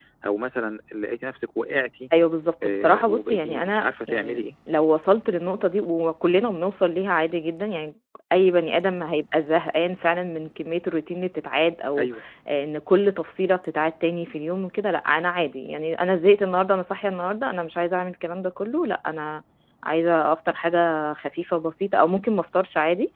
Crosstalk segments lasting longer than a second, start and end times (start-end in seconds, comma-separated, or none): 2.6-4.4